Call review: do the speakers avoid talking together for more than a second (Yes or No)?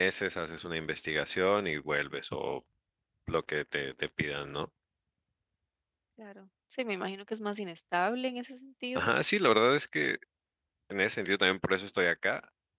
Yes